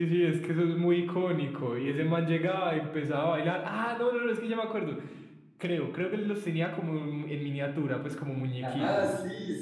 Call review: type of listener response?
taking over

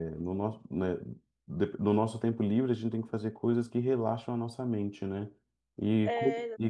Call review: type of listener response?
listening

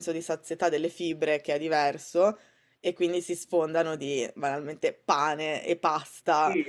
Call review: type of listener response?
taking over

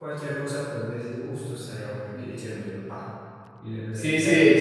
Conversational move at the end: taking over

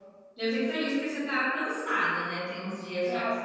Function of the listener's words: taking over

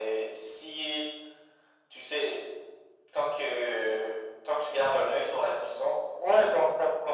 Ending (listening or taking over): taking over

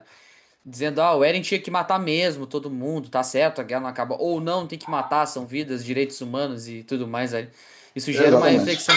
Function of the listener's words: listening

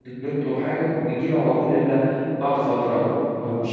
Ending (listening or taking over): taking over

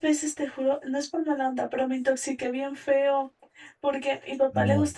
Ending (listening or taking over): listening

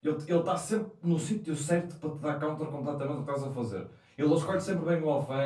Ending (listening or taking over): listening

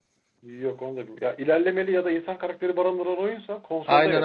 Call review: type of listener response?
taking over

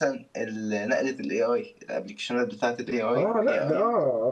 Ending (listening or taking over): taking over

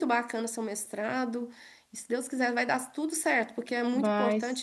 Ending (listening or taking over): listening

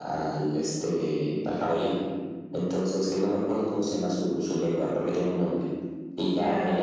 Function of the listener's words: listening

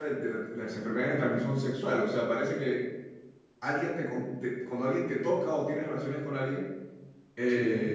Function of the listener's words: listening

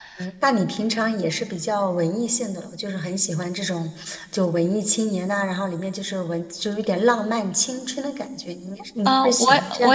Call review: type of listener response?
taking over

